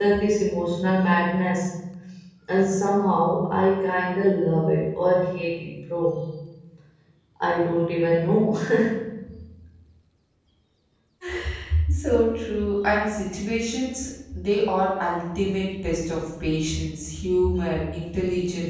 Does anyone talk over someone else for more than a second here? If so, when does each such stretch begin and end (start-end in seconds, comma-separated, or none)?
none